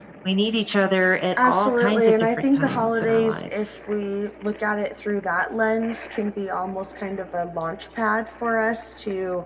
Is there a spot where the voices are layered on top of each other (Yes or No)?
Yes